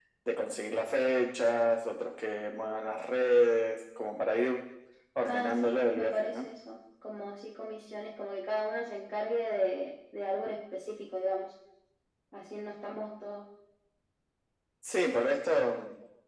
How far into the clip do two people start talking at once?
5.2 s

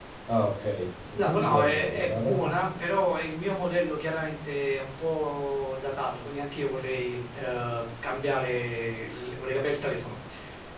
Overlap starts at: 1.2 s

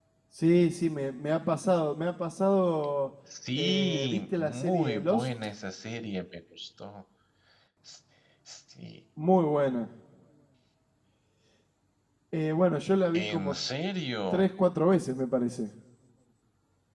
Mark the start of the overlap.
3.6 s

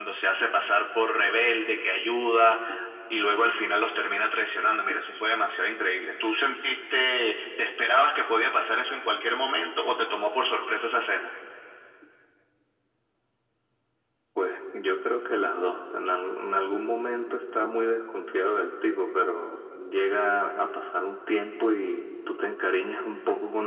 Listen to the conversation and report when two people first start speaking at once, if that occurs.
none

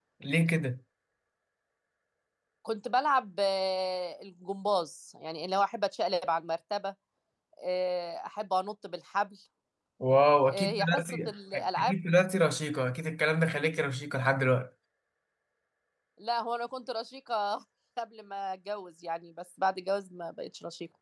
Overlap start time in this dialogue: 10.5 s

